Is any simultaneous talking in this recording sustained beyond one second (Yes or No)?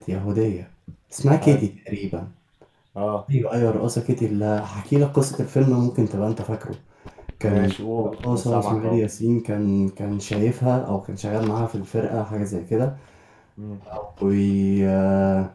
Yes